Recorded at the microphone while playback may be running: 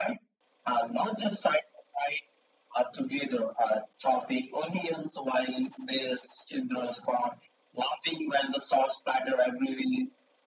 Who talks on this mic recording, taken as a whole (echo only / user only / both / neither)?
echo only